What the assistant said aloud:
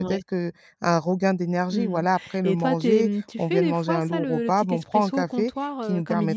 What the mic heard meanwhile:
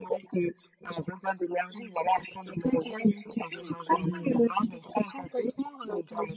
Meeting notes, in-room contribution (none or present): present